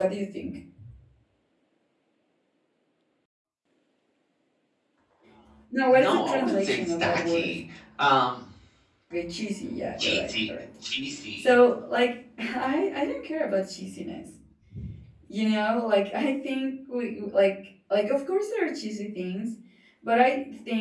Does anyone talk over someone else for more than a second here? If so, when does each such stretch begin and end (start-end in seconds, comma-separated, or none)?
5.9-7.6